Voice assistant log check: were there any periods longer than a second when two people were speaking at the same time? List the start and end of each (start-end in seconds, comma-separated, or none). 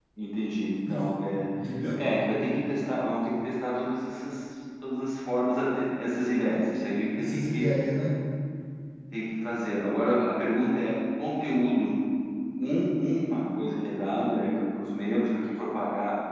none